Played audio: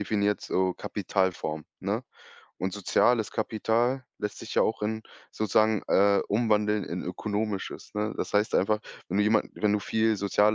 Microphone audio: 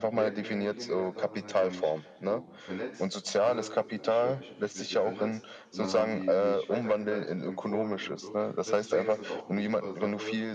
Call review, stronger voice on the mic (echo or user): echo